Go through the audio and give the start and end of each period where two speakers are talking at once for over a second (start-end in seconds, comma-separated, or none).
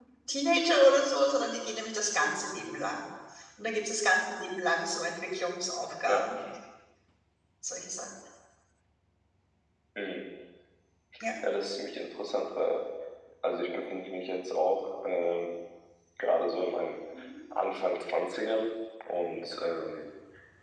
none